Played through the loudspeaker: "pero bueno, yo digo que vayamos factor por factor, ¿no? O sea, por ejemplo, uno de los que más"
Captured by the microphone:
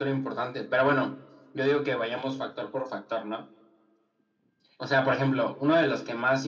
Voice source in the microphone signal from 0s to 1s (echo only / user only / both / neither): echo only